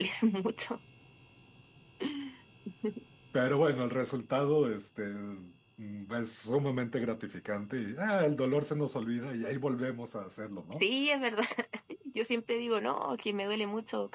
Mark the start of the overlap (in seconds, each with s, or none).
none